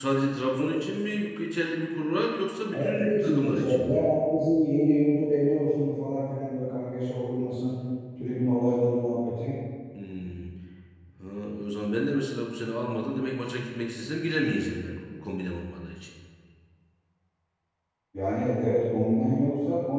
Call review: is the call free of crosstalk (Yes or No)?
No